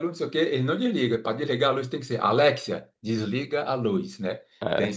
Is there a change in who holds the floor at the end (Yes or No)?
No